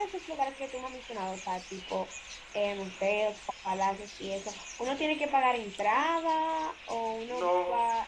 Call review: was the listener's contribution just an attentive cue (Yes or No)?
No